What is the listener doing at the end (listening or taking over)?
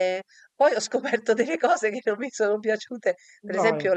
listening